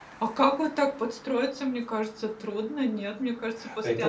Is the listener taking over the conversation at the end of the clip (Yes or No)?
Yes